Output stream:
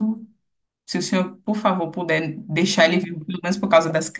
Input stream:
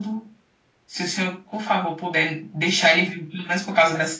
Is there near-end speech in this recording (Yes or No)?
No